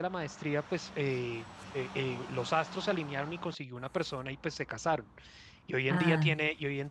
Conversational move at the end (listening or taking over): listening